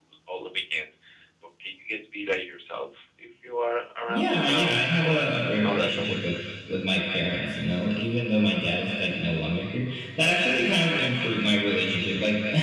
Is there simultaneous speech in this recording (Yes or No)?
Yes